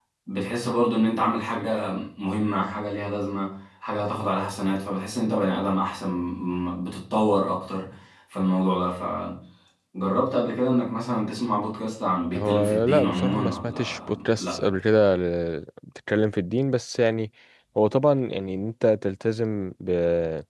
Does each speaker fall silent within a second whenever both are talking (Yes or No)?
No